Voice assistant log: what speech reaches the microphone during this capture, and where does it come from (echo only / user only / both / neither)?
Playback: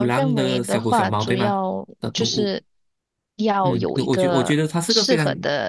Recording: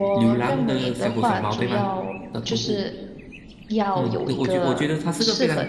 echo only